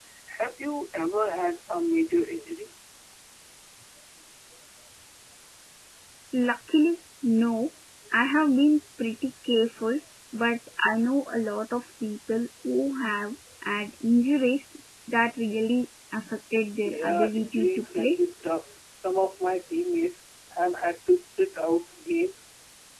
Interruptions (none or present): present